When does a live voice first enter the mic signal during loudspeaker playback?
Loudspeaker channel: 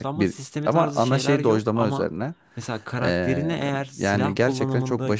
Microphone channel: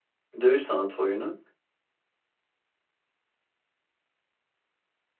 0.4 s

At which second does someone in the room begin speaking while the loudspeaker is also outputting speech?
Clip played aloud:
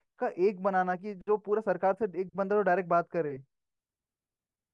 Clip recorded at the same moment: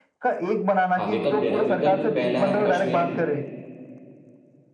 1.0 s

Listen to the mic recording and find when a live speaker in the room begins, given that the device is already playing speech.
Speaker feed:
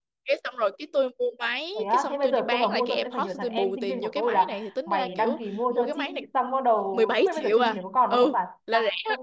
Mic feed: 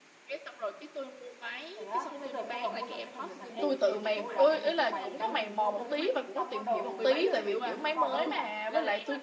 3.6 s

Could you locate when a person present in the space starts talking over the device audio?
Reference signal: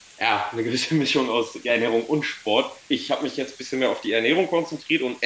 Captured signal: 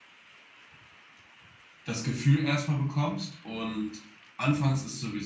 1.8 s

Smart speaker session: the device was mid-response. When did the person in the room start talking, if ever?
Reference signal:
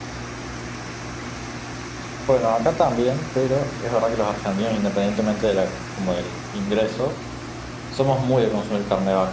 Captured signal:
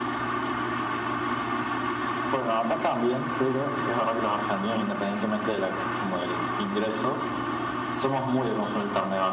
none

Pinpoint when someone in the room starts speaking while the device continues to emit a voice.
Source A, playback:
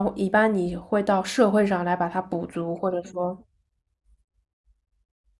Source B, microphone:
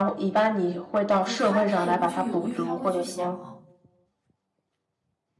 1.2 s

